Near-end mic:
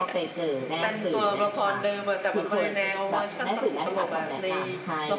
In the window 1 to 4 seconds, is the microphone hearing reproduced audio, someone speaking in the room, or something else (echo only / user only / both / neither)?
both